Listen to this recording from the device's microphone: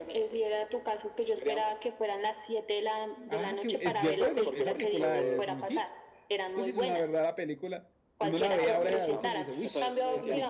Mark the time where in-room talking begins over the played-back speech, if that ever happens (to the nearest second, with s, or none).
3 s